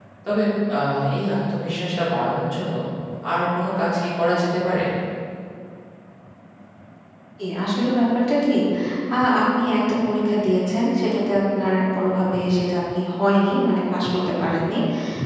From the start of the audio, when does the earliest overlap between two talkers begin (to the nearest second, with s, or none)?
none